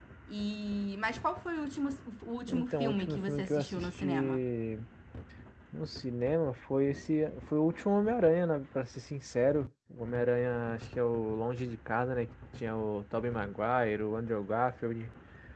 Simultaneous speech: Yes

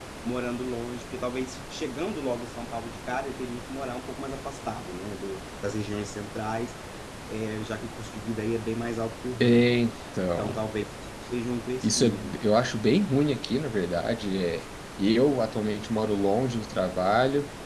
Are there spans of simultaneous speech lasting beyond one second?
No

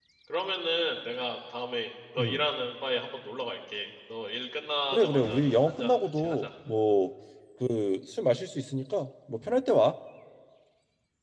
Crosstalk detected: Yes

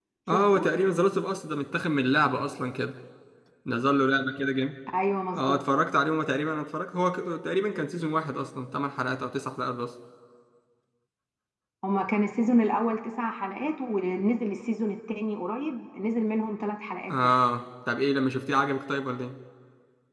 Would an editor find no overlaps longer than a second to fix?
Yes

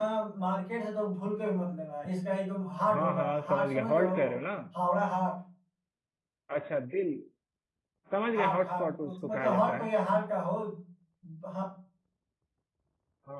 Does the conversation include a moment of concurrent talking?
Yes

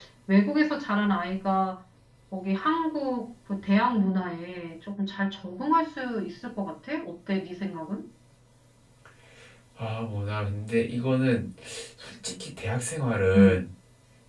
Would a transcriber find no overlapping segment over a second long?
Yes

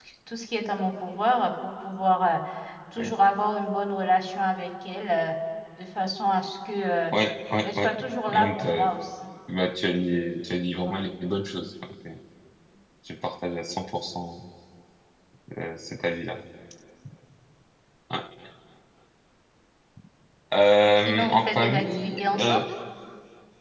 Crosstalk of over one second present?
Yes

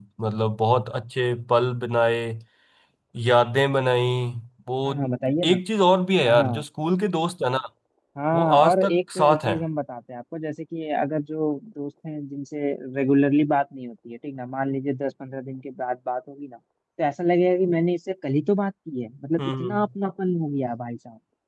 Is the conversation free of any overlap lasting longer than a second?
No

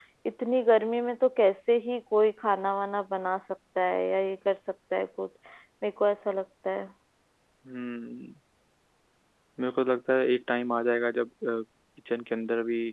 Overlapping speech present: No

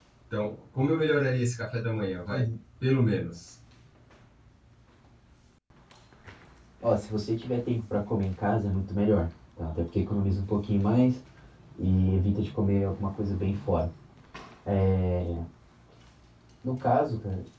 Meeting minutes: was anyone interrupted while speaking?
No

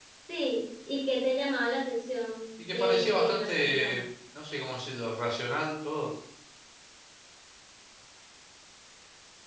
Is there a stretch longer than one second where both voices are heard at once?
Yes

